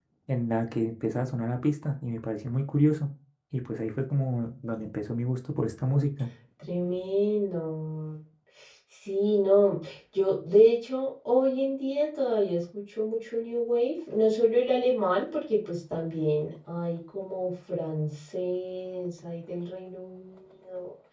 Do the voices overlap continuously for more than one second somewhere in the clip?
No

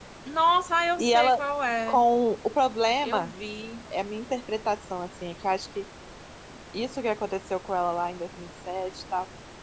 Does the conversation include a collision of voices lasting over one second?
No

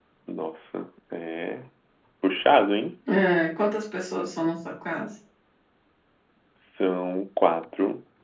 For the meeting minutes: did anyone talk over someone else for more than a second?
No

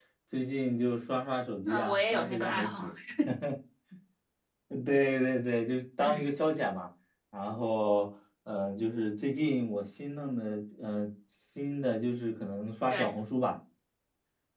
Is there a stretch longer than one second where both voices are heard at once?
Yes, from 1.7 s

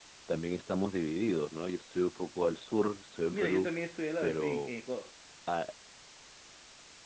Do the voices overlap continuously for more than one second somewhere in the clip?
No

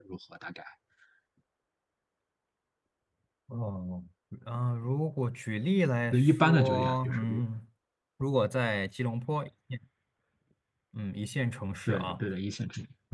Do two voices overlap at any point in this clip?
Yes, from 6.1 s

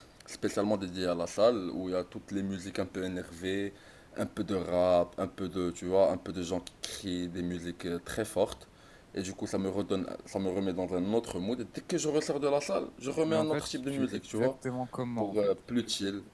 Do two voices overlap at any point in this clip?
Yes, from 13.3 s

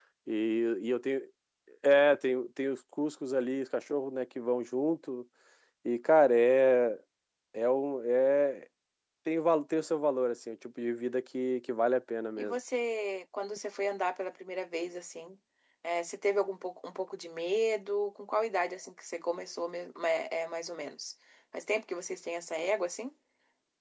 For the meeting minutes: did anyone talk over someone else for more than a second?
No

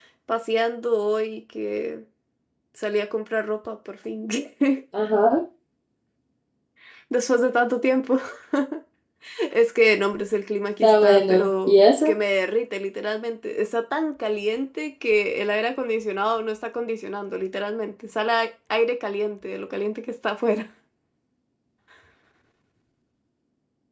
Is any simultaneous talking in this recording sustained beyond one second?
Yes, from 10.8 s

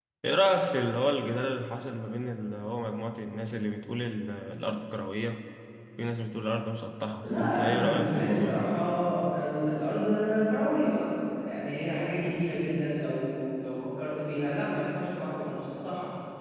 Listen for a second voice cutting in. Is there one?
Yes, from 7.2 s

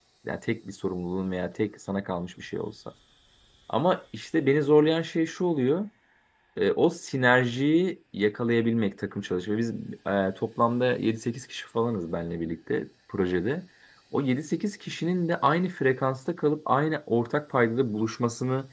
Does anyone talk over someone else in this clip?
No

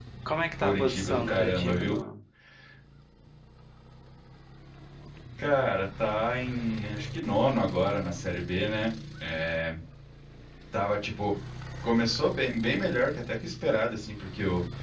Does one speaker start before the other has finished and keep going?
Yes, from 0.6 s

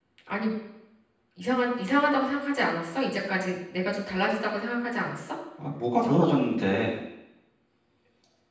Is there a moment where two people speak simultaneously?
No

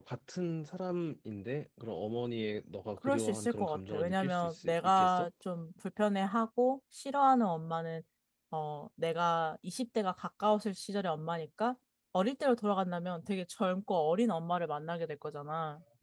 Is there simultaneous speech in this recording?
Yes, from 3.0 s

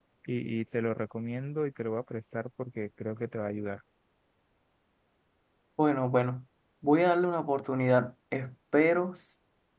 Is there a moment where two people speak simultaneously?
No

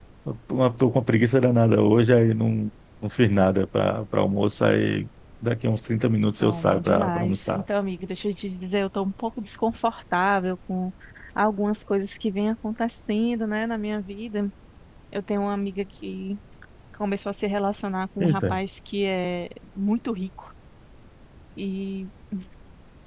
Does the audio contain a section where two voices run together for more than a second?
Yes, from 6.4 s

